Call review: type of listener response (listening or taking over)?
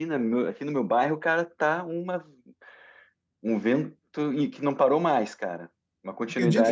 taking over